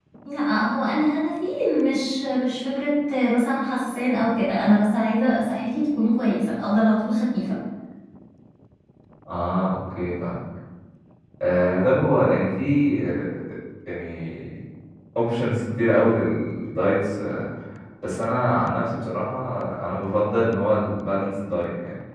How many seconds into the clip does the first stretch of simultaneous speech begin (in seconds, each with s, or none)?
none